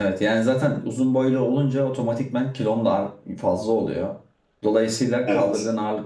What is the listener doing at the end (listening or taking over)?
listening